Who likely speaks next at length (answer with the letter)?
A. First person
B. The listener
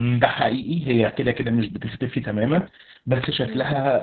A